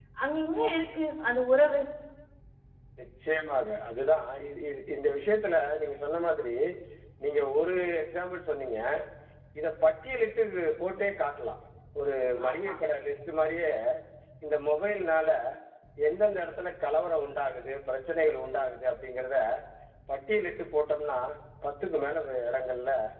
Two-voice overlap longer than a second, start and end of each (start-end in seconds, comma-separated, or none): none